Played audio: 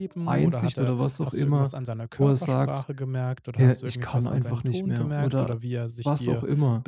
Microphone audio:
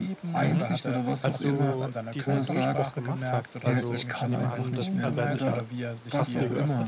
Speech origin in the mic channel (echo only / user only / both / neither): both